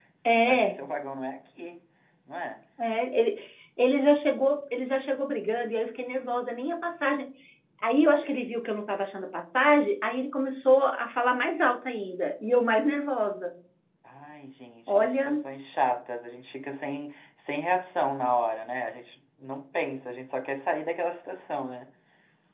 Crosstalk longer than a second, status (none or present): none